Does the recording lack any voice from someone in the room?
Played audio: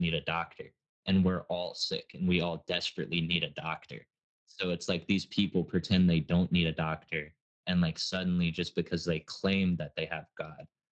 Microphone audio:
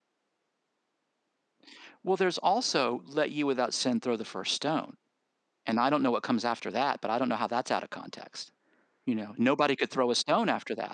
No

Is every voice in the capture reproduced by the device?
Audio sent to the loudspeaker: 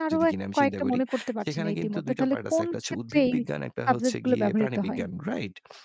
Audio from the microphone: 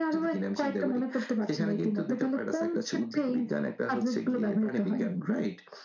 Yes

